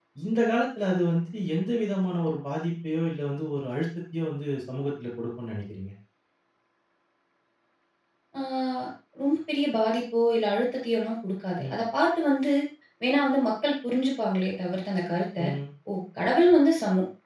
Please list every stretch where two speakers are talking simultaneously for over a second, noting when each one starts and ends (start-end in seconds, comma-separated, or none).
none